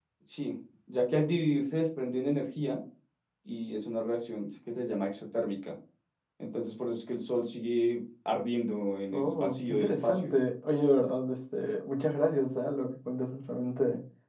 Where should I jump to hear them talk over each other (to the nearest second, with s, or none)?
9 s